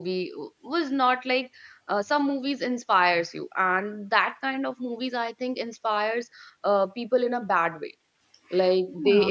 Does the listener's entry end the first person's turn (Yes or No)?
No